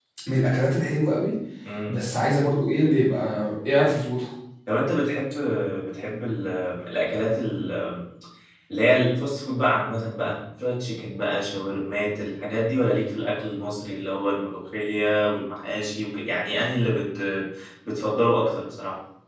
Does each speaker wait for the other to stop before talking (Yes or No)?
Yes